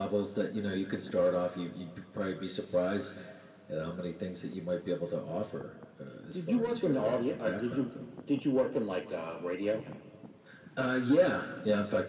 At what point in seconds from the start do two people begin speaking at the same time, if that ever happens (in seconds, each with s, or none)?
6.3 s